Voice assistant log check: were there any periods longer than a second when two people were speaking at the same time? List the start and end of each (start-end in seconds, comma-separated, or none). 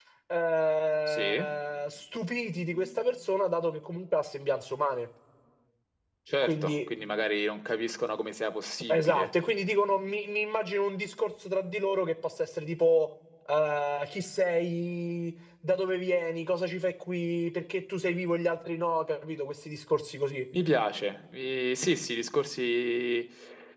none